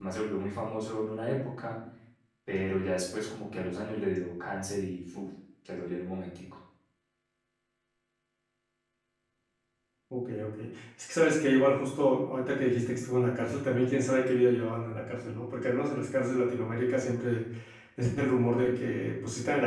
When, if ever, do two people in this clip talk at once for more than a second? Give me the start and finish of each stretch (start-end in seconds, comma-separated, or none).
none